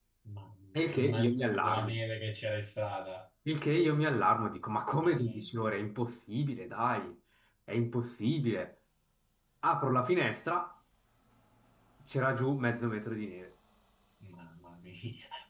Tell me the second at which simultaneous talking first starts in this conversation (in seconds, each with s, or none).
0.8 s